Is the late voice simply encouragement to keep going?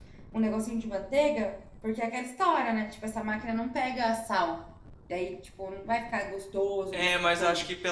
No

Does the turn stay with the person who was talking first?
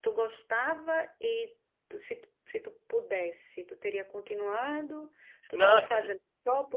Yes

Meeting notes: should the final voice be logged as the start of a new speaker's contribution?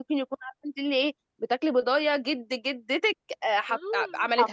Yes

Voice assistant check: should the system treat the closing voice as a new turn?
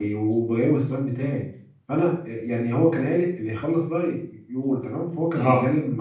No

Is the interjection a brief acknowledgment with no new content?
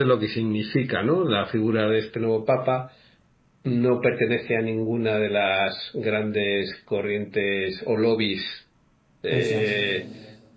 Yes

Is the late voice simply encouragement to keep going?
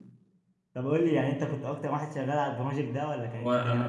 No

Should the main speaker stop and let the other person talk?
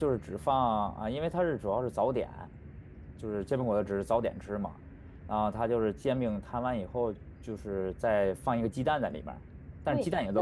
Yes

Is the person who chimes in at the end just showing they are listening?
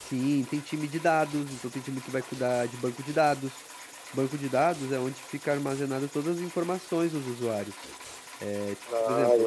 No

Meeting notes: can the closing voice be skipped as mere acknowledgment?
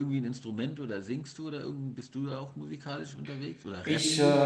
No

